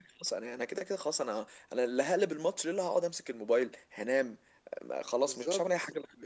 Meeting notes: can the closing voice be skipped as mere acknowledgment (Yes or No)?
No